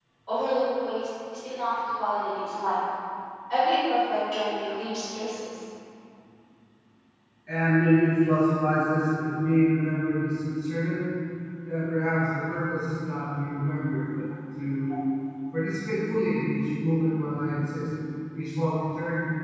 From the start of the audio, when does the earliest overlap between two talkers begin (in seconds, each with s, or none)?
none